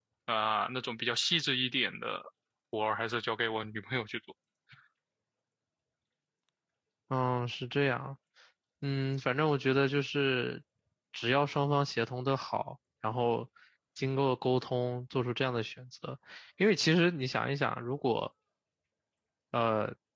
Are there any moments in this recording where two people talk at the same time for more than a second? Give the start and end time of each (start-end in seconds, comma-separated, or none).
none